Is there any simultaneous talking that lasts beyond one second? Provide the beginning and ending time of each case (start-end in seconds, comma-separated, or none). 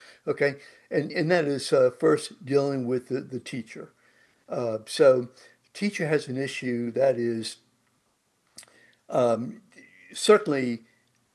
none